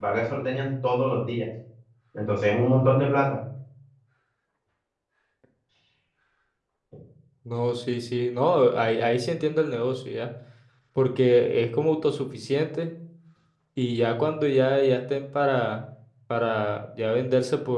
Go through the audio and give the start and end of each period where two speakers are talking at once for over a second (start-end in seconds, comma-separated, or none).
none